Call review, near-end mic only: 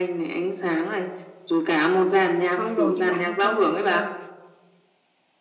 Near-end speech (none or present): present